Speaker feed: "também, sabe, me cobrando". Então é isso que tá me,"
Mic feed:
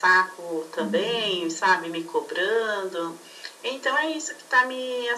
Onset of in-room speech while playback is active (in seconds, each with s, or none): 0.8 s